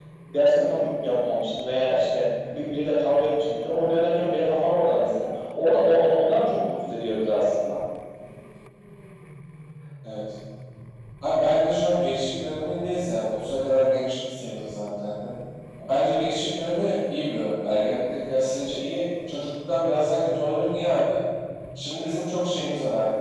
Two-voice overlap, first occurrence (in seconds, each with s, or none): none